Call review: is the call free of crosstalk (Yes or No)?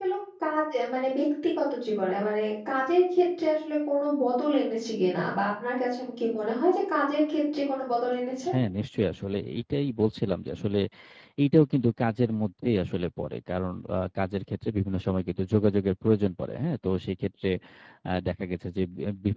Yes